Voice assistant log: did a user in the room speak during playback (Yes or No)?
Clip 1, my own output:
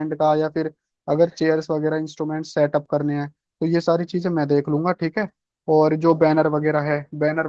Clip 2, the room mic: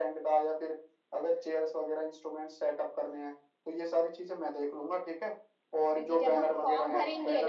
Yes